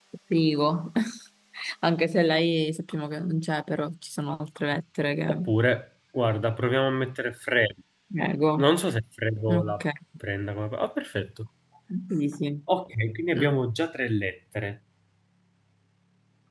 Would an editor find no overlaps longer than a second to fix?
Yes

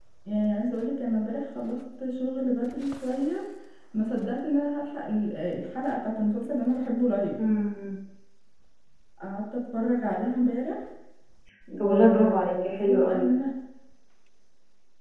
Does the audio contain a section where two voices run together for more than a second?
Yes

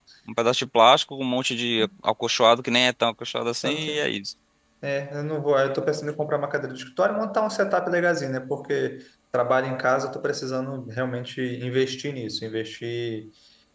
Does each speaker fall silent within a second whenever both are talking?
Yes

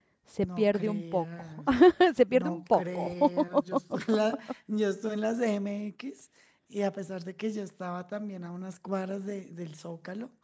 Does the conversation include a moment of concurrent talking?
Yes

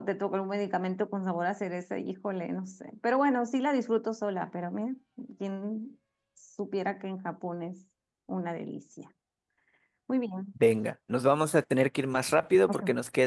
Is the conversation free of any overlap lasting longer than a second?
Yes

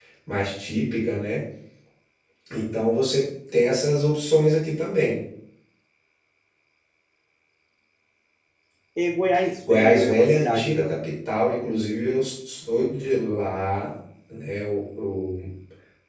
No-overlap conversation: No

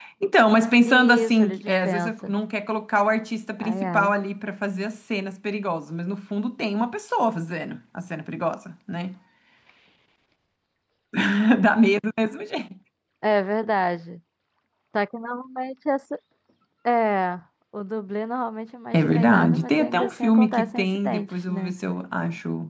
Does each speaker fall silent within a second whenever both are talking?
No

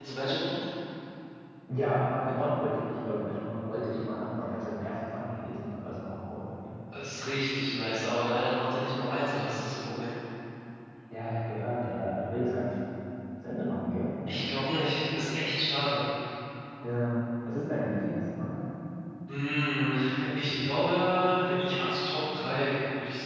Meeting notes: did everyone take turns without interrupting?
Yes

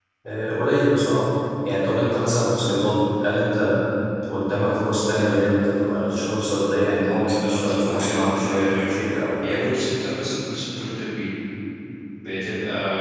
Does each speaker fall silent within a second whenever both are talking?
No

